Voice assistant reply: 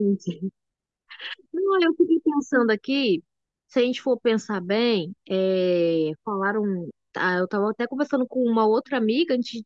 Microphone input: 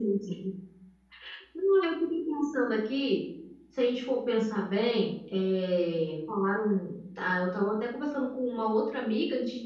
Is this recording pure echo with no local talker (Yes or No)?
Yes